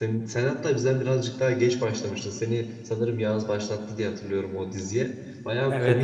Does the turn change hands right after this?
No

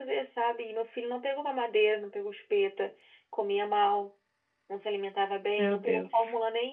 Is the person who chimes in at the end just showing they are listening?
Yes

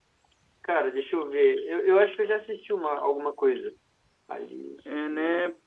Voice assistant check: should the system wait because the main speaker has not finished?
No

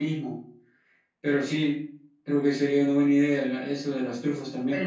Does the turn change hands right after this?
Yes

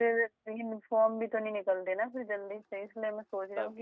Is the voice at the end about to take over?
No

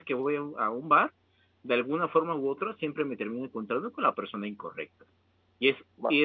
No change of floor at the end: Yes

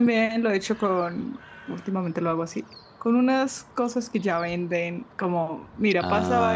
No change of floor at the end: Yes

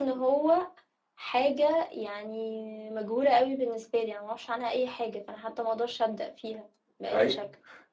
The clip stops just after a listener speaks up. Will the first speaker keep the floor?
No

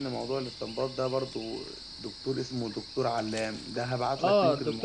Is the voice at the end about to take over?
Yes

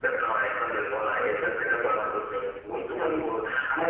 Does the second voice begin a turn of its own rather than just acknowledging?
No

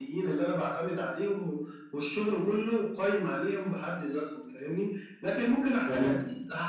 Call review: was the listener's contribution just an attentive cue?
Yes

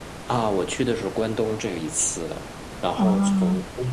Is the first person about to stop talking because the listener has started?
No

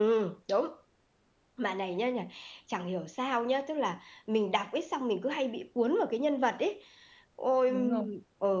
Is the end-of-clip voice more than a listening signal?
No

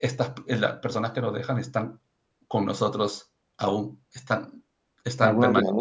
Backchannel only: No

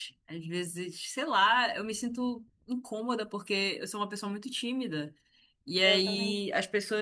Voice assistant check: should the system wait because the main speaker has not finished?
Yes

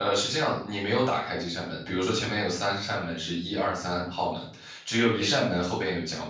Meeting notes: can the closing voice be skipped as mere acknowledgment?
Yes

